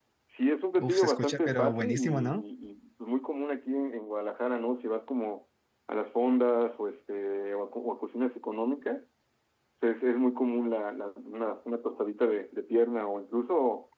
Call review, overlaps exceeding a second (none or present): present